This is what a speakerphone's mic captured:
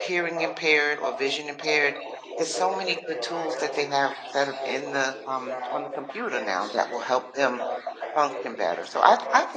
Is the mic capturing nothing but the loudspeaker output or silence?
No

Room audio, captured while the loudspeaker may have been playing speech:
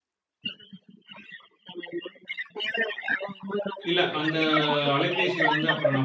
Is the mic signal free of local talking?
No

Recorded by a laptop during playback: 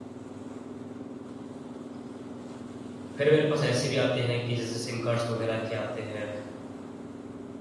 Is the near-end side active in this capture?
Yes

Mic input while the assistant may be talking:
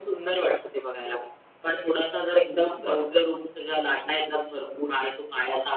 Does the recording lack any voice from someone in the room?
No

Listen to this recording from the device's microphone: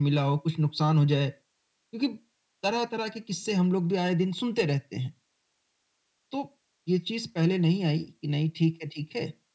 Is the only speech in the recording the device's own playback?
Yes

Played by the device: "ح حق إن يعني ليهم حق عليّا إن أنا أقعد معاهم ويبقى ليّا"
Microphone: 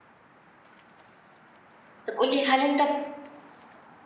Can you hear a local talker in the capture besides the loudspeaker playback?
Yes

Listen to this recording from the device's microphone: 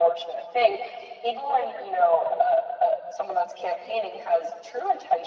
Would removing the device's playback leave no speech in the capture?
Yes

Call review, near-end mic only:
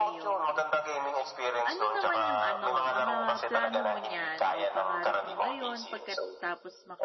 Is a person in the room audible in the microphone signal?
Yes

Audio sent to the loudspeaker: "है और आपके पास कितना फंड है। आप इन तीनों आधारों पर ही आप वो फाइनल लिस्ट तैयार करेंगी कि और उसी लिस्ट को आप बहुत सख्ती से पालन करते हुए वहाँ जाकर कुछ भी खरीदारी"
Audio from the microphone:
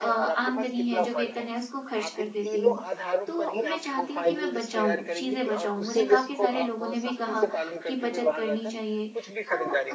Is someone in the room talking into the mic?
Yes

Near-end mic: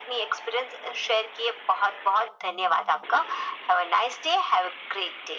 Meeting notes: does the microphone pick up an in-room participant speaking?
No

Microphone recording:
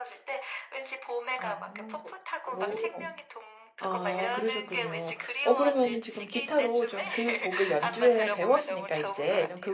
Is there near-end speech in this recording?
Yes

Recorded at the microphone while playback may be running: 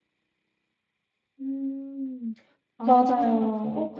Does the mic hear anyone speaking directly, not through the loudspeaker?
Yes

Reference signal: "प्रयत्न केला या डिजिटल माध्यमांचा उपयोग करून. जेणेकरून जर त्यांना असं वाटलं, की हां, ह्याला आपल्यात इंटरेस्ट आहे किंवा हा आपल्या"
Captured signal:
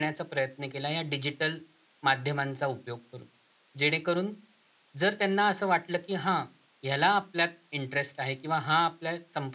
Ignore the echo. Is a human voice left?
No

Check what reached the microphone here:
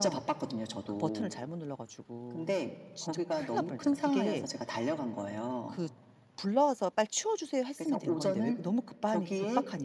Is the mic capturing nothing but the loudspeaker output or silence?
No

